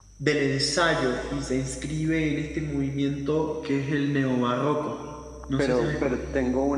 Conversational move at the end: taking over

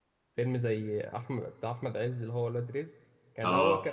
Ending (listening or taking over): listening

